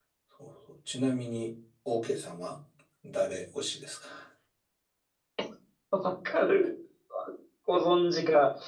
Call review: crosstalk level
none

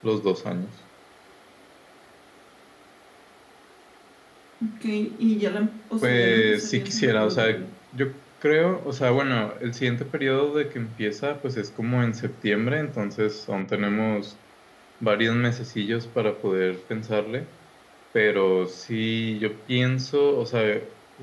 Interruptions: present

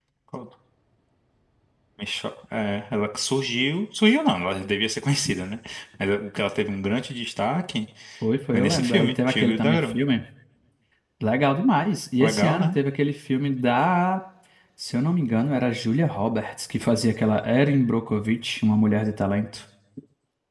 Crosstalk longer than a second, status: present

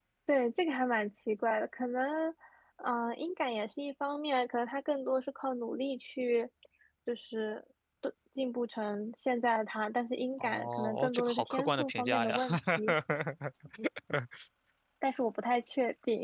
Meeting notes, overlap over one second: present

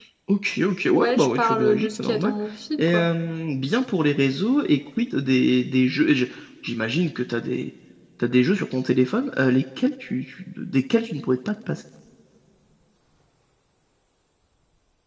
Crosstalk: present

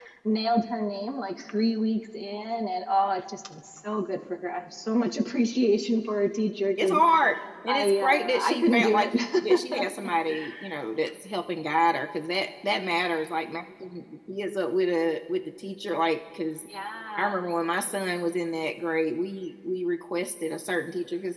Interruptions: present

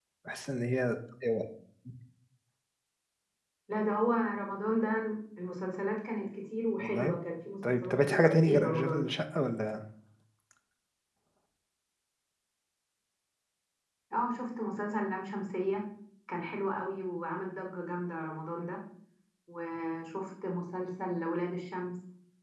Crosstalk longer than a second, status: present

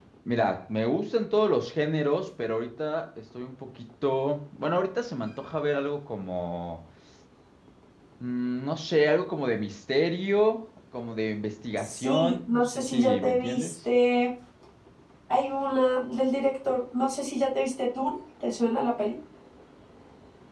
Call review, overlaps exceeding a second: present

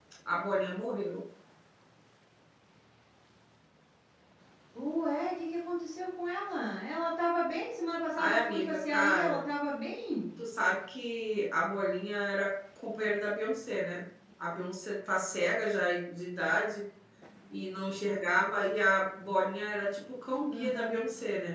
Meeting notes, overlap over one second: present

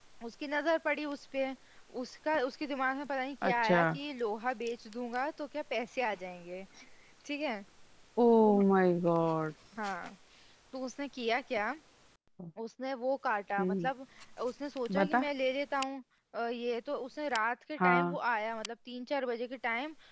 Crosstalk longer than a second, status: none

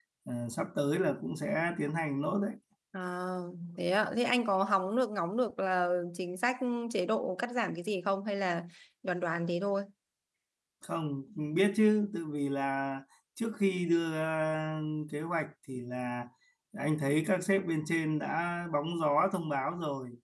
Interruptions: none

